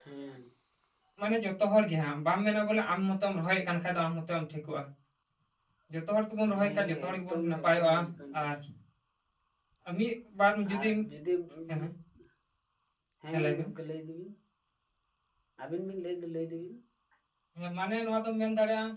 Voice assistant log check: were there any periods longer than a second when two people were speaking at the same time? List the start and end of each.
6.6-8.0

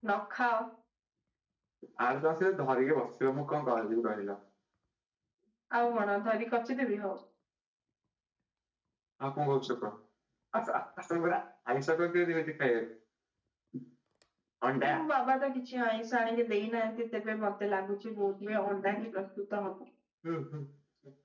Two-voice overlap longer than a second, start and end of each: none

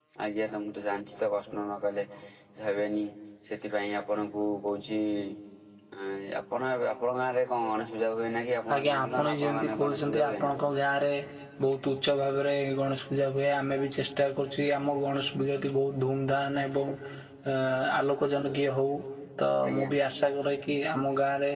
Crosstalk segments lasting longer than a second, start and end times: 8.7-10.4

